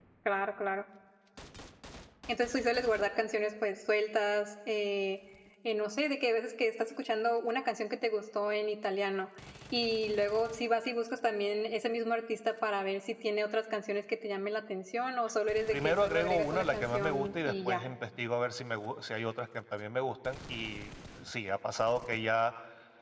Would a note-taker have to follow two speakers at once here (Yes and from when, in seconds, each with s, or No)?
Yes, from 15.7 s